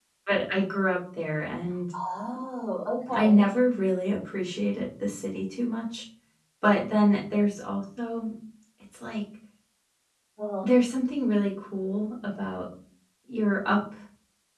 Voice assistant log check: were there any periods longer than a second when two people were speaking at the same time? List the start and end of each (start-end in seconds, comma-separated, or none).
none